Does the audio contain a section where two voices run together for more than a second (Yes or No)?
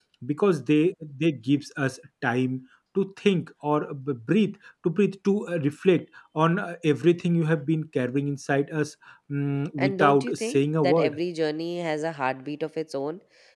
Yes